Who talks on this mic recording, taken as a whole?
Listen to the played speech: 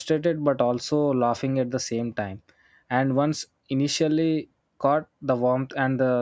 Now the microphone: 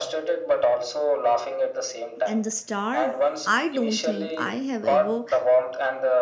both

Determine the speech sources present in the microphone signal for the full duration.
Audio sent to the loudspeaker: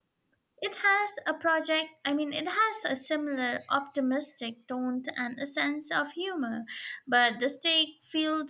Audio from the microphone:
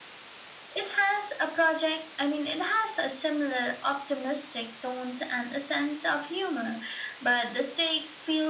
echo only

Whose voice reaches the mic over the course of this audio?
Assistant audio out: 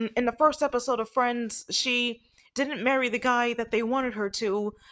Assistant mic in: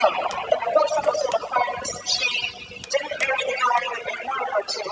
echo only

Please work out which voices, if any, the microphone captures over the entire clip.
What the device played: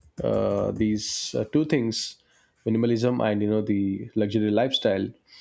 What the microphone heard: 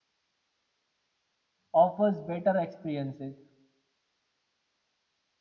user only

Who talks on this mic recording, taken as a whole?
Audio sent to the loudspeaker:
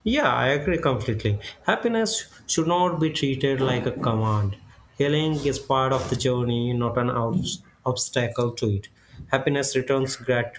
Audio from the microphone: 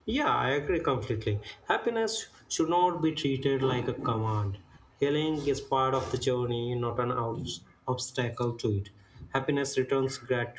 echo only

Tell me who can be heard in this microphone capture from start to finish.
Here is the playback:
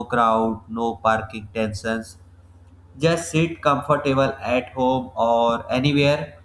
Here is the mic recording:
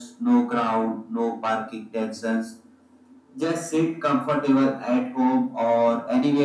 echo only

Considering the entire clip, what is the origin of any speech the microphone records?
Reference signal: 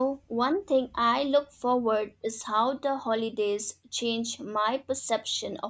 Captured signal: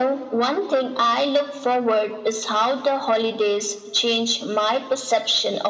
echo only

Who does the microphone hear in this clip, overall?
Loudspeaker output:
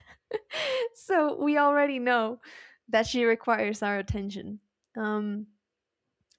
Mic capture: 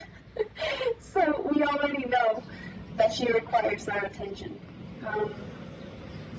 echo only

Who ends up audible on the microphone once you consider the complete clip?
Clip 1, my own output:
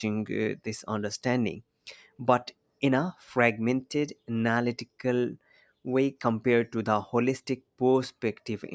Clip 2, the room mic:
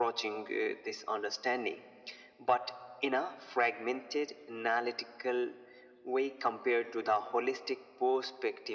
echo only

